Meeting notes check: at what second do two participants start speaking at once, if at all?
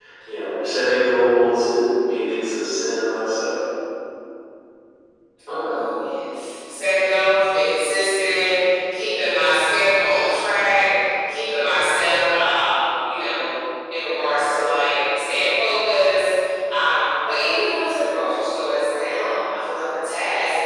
none

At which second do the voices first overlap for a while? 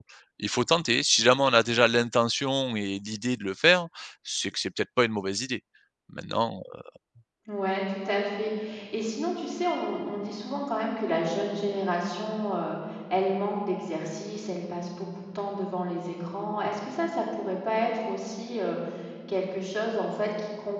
none

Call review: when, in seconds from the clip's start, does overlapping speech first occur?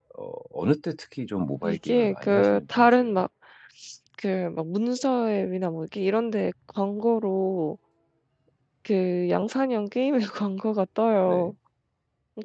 1.6 s

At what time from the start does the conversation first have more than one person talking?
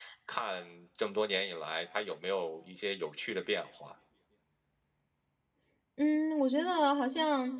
none

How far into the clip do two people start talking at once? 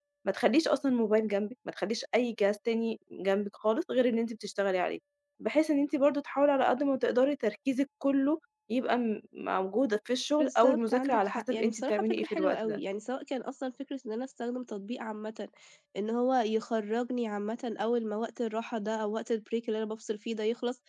10.4 s

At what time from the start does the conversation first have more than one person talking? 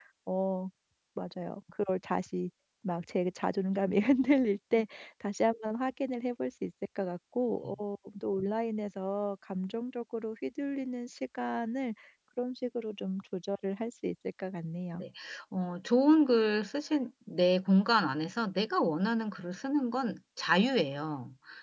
none

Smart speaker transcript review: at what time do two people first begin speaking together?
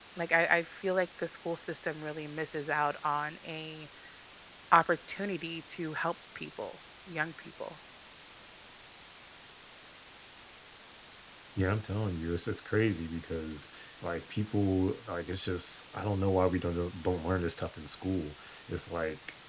none

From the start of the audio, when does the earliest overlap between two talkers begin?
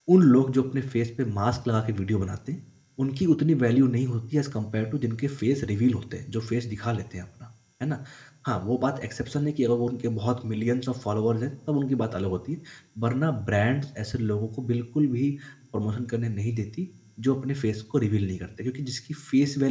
none

